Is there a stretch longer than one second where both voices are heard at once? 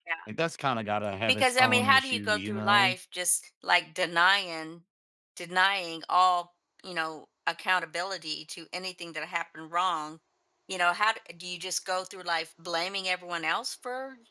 Yes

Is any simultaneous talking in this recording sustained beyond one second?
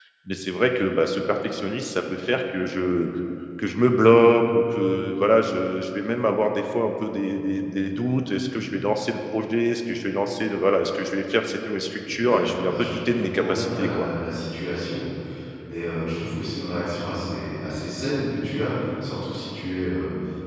Yes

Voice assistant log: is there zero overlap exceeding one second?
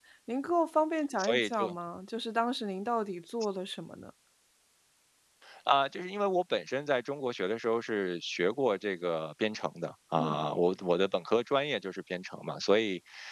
Yes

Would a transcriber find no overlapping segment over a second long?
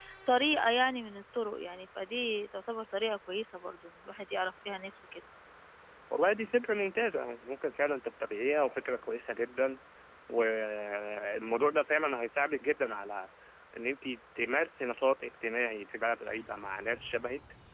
Yes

